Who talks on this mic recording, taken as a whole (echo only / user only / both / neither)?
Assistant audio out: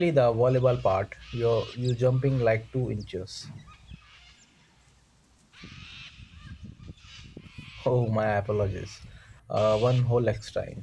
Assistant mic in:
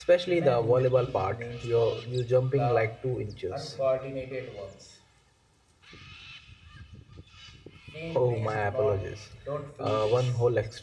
both